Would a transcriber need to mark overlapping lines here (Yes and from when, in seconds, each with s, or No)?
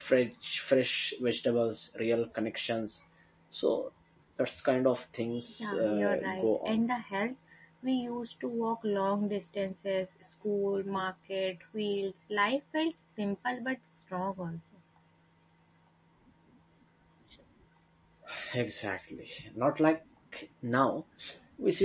Yes, from 5.6 s